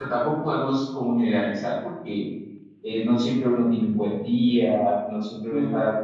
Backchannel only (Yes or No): Yes